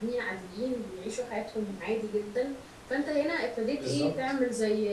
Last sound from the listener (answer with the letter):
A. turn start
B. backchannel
B